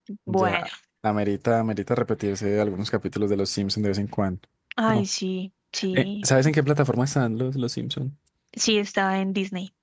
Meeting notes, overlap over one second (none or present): none